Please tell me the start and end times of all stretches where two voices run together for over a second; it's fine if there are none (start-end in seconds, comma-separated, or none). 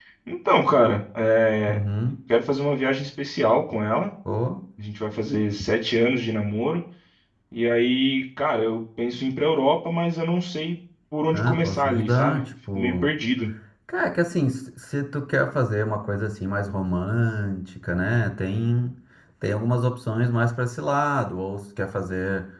11.3-13.1